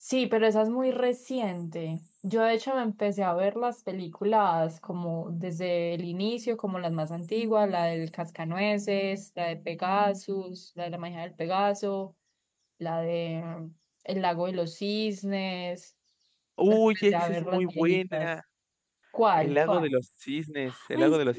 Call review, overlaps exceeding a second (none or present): present